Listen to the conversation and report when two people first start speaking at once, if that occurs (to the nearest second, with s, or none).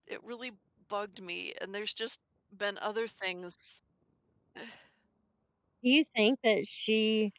none